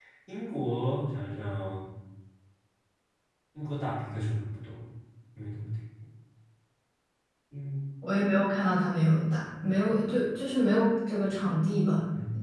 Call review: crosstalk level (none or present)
none